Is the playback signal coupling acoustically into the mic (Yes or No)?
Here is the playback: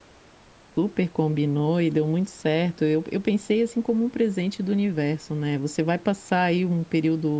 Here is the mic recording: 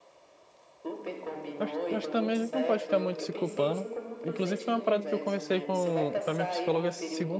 Yes